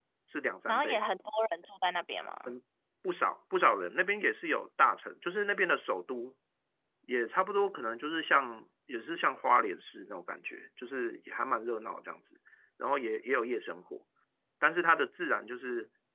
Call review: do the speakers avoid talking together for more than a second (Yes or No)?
Yes